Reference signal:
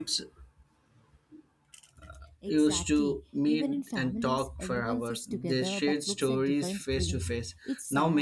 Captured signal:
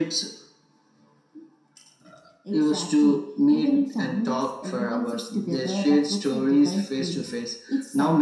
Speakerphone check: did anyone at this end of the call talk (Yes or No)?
No